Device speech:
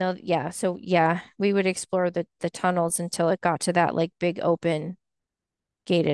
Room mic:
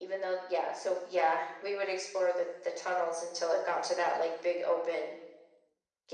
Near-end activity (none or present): none